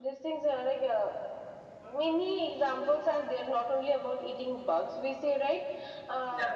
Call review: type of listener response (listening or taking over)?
listening